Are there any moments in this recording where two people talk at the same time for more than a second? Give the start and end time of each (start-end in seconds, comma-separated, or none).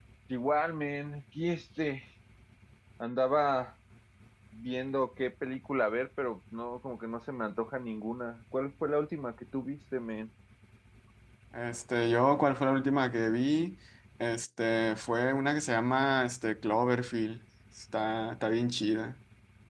none